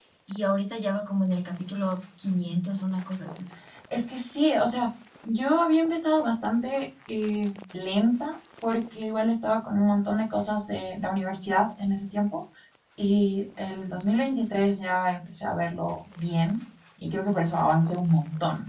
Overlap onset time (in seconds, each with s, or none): none